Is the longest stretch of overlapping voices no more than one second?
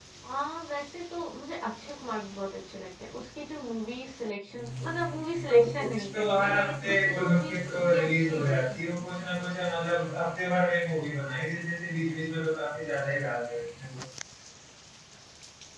No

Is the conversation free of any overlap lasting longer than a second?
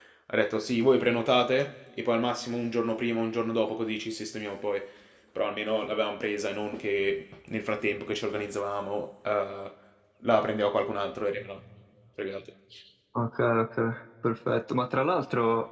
Yes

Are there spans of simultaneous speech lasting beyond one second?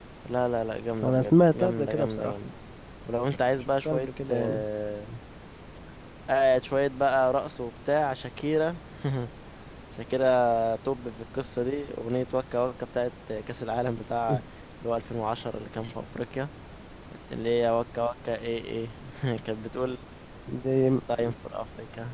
Yes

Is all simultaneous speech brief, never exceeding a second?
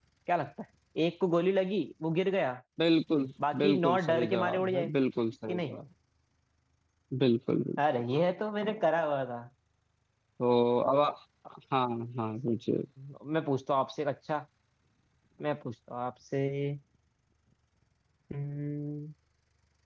No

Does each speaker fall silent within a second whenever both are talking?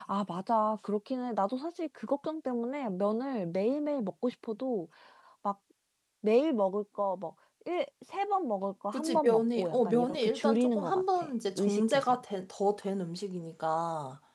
No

